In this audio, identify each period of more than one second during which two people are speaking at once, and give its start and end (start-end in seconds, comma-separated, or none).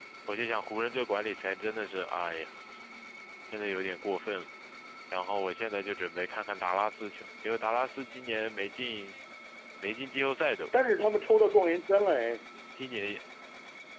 none